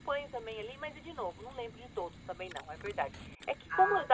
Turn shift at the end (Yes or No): No